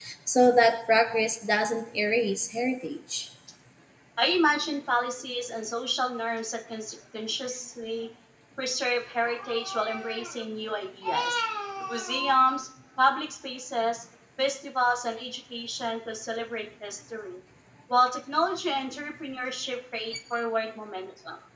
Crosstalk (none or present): none